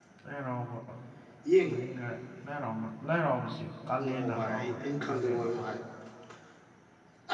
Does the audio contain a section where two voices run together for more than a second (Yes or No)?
Yes